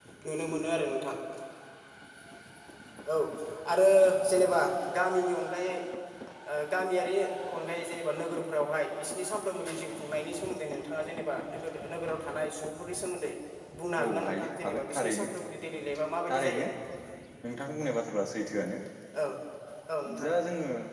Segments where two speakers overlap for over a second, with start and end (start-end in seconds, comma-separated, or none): 14.0-15.2